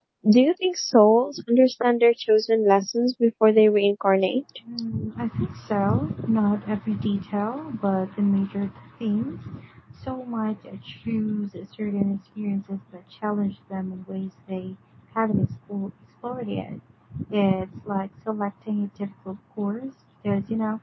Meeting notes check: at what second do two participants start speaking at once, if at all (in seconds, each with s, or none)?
none